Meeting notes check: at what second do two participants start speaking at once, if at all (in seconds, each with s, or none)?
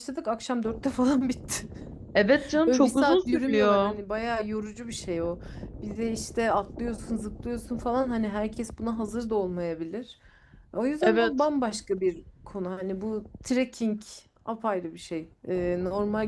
2.7 s